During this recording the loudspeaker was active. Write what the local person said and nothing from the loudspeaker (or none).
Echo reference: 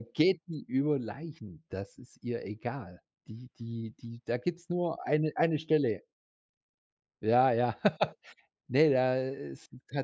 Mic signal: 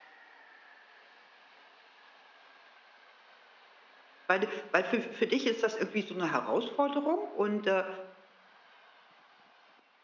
Weil du weil fü für dich ist das irgendwie so 'ne Herausforderung und, äh,